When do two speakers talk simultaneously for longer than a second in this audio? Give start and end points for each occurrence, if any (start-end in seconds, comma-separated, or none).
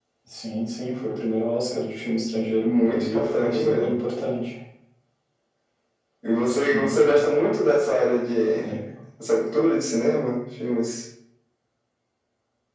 2.6-4.0